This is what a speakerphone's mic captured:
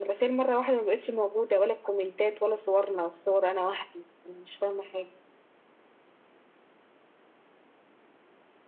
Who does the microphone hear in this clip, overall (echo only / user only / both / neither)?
echo only